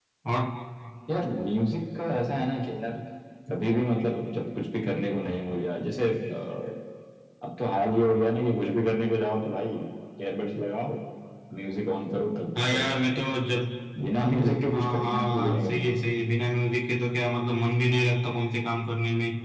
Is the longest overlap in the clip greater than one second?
Yes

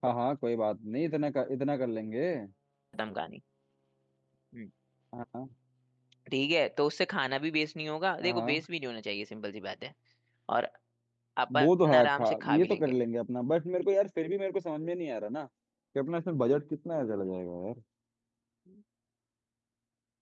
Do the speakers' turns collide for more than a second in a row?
Yes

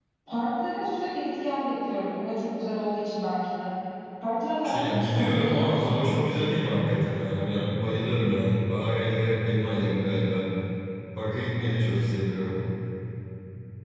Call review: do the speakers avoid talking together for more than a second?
No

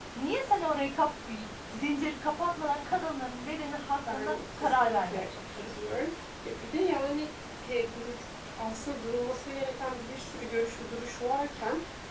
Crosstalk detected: Yes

